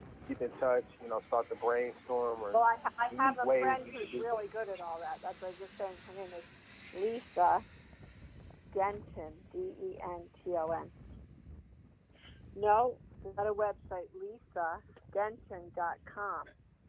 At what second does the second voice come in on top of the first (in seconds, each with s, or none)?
3.1 s